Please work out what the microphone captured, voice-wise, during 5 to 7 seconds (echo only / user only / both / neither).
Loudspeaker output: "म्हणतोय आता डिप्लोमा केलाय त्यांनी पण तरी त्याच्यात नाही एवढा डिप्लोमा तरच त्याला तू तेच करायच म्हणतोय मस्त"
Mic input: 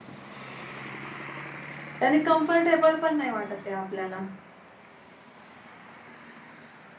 neither